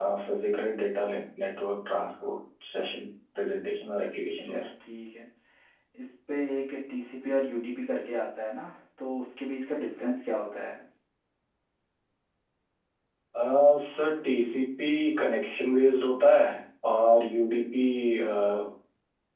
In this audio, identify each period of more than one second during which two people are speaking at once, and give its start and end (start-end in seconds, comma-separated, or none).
none